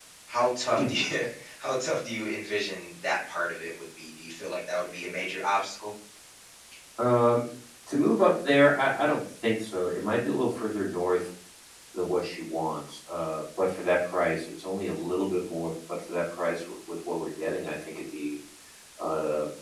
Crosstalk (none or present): none